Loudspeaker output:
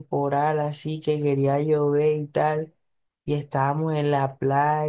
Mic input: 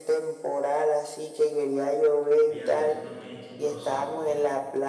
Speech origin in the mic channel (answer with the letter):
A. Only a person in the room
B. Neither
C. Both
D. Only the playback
C